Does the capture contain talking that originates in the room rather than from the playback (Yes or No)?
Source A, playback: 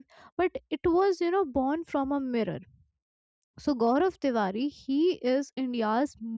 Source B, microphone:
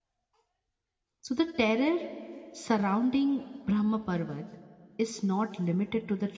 Yes